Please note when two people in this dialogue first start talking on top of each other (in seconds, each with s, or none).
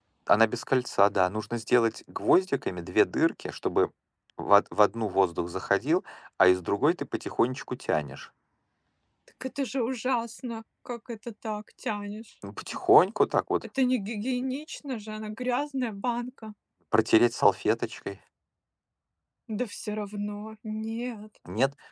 none